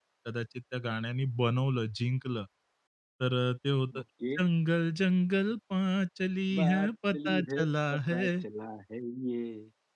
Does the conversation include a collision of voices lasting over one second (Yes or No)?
Yes